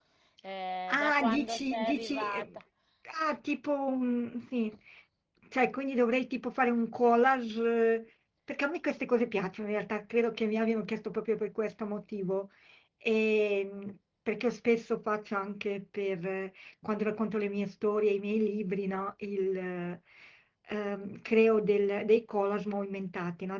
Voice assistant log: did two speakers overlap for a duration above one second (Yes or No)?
Yes